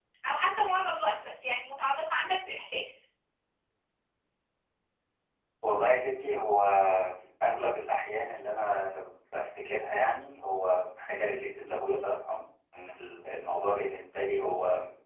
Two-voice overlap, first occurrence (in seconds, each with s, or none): none